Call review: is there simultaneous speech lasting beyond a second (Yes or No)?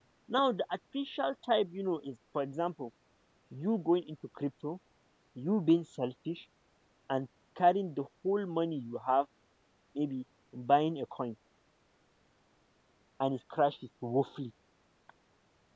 No